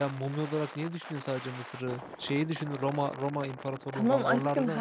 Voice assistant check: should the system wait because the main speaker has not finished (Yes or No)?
No